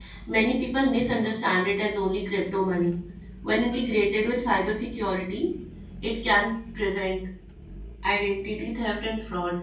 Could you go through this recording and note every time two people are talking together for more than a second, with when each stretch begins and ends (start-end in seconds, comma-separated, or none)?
none